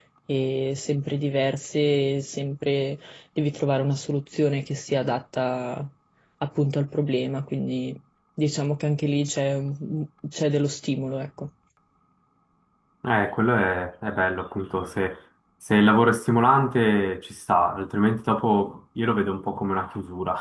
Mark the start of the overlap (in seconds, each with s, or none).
none